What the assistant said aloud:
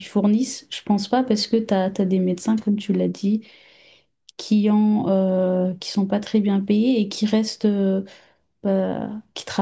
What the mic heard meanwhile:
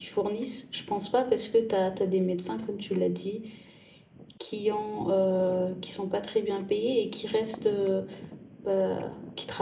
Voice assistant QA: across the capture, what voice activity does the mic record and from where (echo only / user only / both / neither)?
echo only